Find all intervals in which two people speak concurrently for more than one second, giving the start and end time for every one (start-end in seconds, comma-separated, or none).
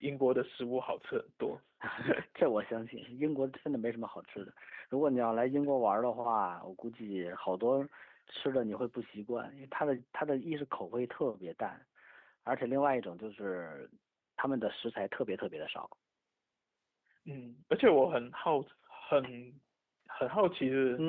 none